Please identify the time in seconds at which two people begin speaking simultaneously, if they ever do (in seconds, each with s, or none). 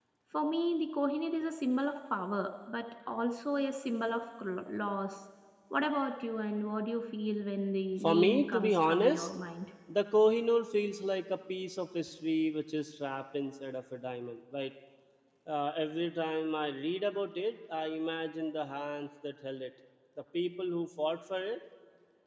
8.0 s